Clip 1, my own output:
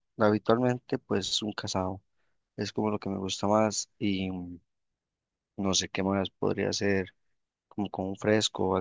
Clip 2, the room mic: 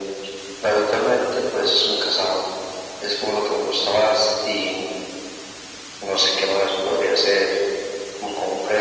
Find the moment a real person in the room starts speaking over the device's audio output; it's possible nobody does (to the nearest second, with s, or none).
none